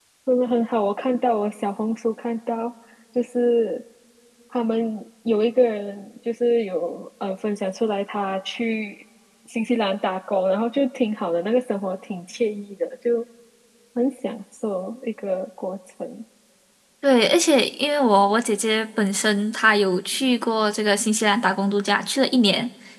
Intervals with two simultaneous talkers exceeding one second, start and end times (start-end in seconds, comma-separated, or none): none